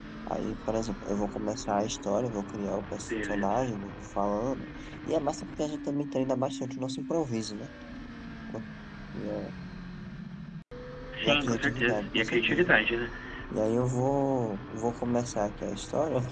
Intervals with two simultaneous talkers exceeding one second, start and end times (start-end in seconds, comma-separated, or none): 11.2-12.7